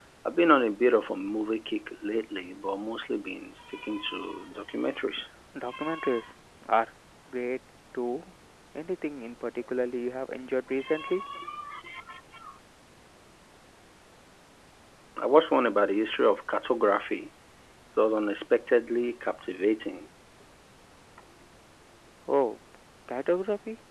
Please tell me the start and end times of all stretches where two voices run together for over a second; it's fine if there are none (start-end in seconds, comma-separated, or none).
none